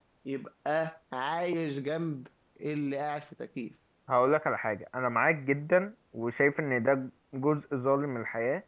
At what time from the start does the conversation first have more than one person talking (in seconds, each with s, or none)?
none